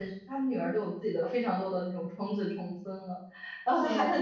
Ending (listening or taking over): listening